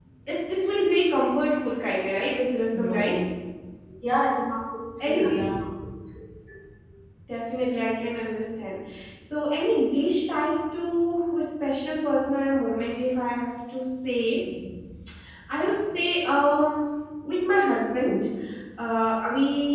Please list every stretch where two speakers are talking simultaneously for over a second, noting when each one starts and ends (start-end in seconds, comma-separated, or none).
none